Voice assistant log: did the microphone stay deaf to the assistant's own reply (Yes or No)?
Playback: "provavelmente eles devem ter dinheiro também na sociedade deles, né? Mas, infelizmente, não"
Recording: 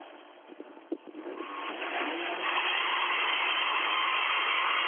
Yes